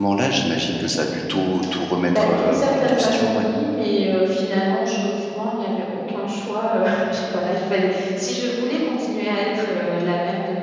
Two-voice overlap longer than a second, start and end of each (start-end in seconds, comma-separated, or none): 2.1-3.5